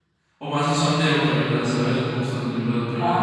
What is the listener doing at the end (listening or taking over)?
taking over